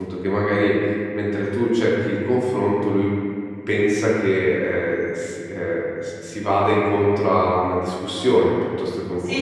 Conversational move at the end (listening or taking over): taking over